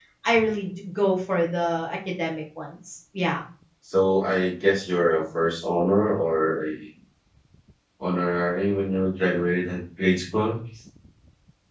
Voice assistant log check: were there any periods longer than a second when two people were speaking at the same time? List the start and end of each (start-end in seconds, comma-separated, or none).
none